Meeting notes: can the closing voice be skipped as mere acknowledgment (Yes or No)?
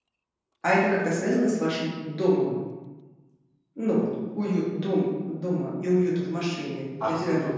No